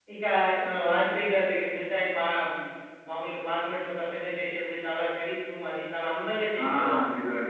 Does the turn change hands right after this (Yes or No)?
Yes